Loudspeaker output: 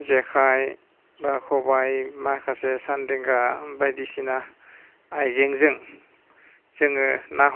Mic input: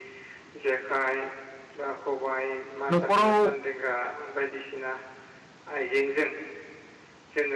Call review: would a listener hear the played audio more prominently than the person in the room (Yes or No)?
No